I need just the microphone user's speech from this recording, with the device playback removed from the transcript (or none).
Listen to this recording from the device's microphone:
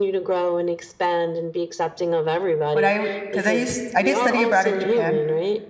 when I because I used I did study abroad in Japan